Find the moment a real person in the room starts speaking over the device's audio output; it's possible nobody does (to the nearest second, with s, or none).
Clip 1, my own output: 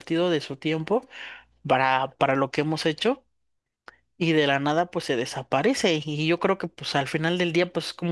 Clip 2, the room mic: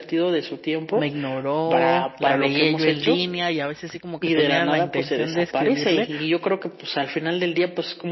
1 s